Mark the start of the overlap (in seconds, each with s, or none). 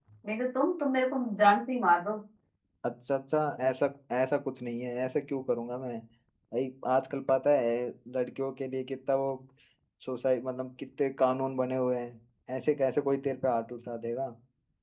none